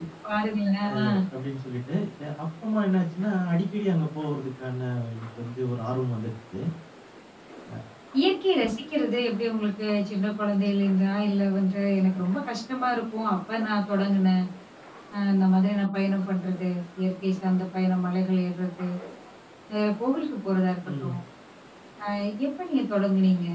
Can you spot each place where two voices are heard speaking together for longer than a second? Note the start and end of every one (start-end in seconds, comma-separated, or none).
none